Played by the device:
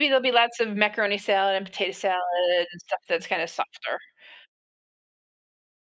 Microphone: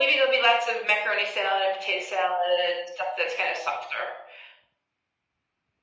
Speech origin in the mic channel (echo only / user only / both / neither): echo only